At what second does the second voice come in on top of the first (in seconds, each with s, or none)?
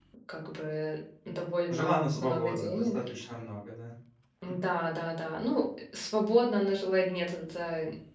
1.7 s